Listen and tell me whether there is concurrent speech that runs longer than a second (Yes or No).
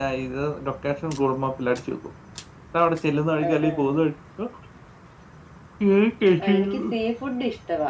No